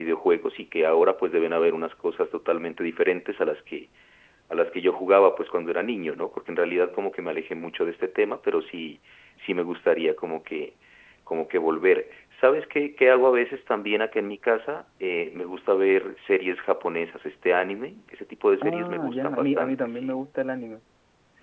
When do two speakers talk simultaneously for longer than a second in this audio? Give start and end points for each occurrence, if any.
18.6-20.1

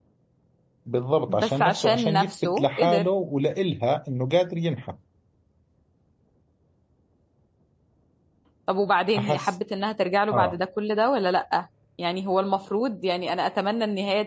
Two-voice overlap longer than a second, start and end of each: 1.3-3.1

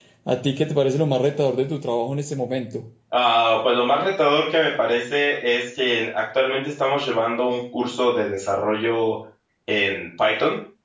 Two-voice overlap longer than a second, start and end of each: none

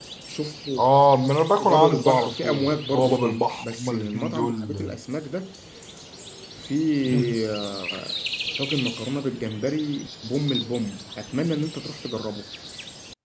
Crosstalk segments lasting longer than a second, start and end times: 1.6-5.0

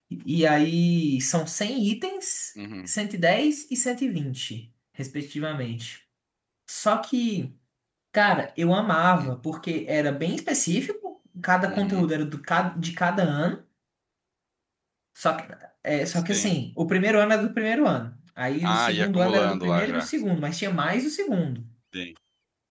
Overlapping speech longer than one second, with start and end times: 18.6-20.1

